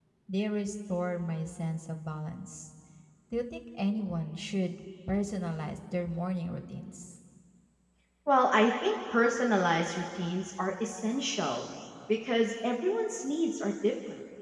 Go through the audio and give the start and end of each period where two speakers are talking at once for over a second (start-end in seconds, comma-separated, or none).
none